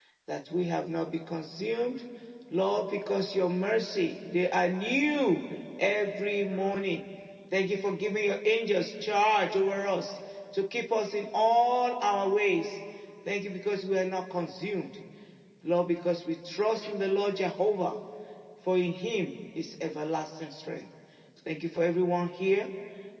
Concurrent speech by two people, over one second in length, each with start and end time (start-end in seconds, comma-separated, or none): none